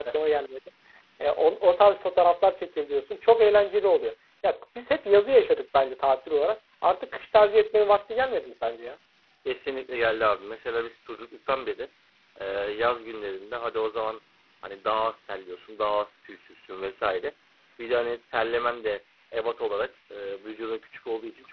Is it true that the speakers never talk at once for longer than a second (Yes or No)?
Yes